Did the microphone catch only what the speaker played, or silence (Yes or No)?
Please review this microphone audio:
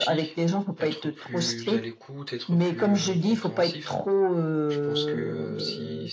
No